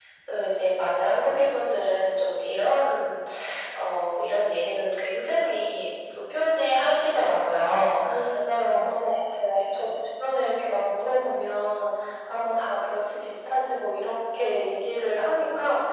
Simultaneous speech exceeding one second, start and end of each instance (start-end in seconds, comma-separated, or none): 8.6-9.9